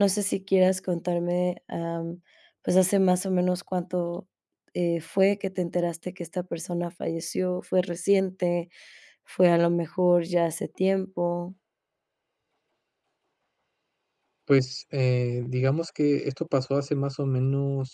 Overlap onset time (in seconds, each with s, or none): none